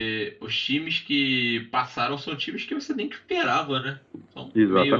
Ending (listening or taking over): taking over